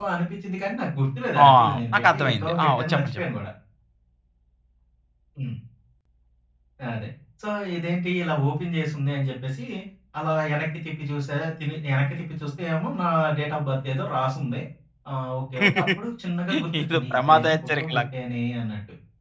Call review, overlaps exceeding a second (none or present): present